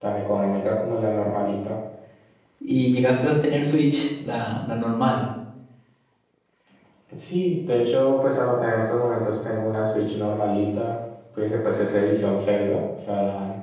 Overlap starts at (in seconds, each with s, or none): none